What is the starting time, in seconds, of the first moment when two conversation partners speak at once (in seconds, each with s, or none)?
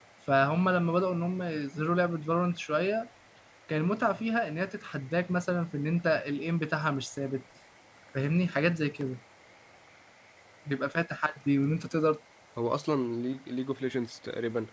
none